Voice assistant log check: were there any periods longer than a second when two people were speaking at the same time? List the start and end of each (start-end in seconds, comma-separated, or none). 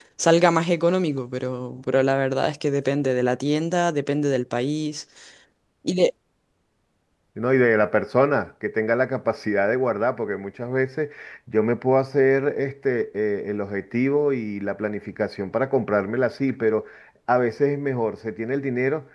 none